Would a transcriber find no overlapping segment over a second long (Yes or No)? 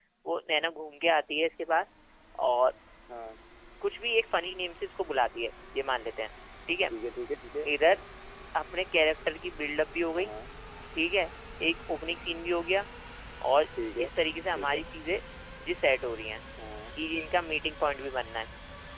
Yes